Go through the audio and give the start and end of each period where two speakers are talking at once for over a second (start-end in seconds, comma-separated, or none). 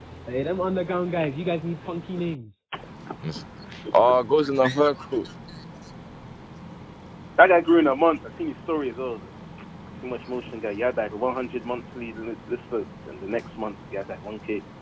none